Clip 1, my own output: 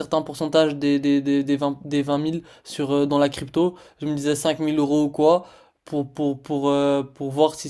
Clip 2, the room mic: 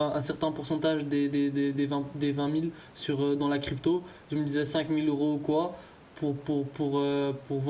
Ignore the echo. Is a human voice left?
No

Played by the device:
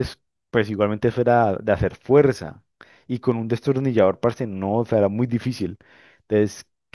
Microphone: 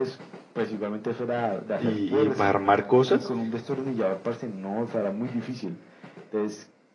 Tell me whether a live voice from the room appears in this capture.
Yes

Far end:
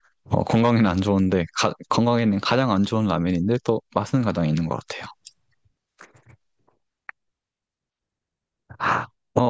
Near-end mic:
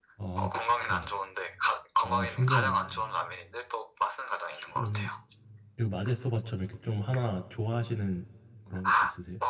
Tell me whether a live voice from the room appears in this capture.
Yes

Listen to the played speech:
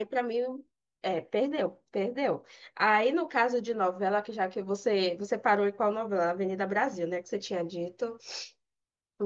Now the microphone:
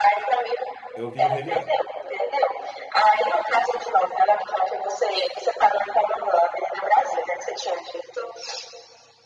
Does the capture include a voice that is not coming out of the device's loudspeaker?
Yes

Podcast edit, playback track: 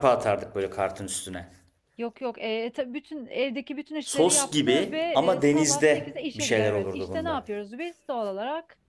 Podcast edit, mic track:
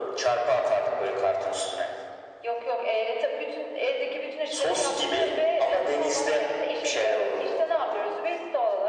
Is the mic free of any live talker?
Yes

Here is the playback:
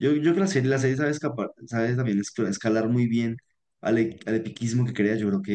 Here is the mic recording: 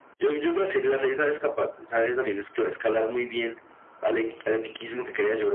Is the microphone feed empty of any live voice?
Yes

